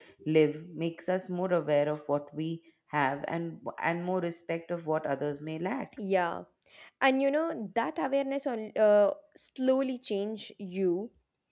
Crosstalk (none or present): none